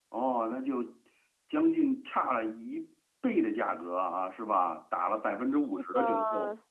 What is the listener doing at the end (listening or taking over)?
taking over